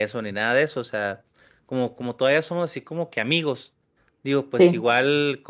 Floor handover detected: No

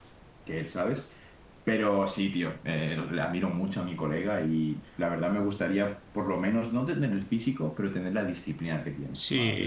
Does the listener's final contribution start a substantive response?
Yes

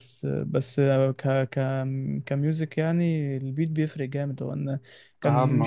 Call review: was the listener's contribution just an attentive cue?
Yes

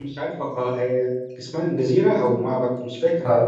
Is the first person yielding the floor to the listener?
Yes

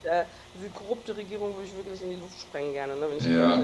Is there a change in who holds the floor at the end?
Yes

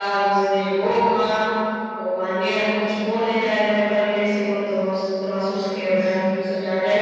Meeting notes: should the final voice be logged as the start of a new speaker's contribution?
No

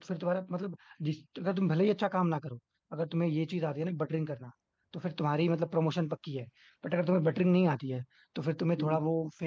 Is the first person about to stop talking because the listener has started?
No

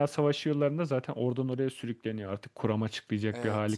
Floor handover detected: Yes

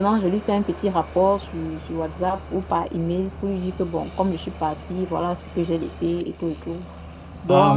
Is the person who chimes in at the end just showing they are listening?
Yes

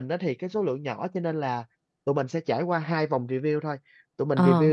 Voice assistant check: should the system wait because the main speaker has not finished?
Yes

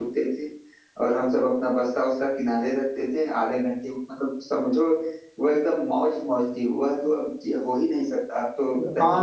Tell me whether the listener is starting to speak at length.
Yes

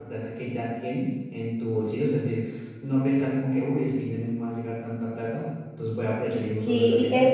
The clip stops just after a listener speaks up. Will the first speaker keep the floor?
No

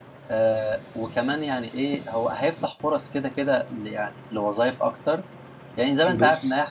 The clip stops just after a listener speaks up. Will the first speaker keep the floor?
Yes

